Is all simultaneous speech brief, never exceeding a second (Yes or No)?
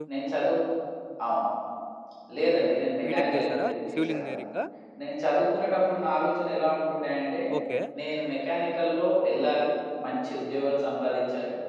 No